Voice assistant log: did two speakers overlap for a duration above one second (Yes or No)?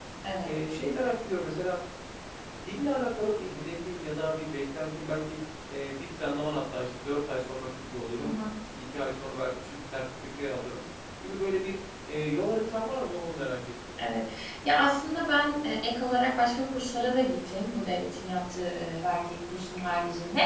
No